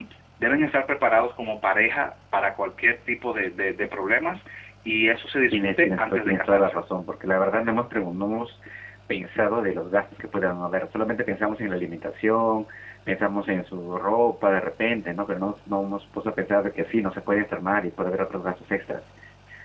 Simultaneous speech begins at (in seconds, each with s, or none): 5.5 s